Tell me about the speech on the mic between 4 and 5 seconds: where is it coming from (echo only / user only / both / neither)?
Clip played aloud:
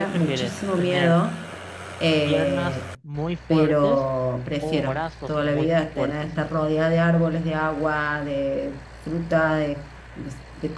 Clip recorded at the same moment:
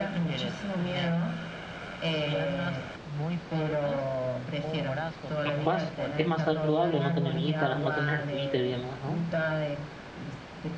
echo only